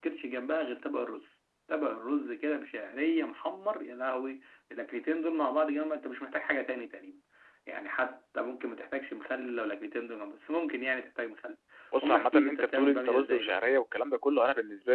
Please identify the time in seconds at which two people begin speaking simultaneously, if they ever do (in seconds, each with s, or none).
12.0 s